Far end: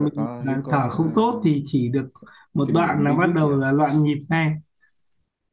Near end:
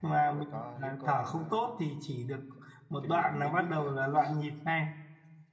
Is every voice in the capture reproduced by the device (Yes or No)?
Yes